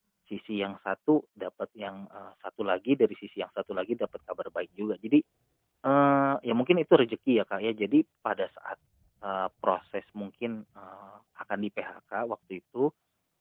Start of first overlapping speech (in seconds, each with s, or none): none